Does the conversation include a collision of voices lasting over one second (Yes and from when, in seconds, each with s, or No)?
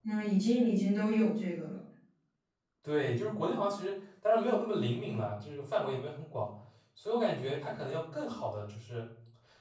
No